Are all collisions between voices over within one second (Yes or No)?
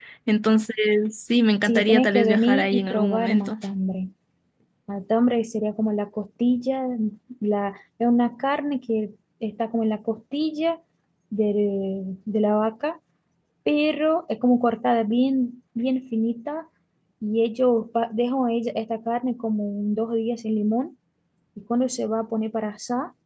No